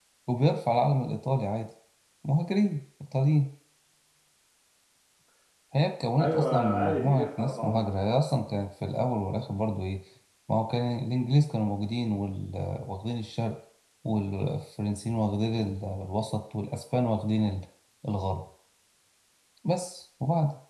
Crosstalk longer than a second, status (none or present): present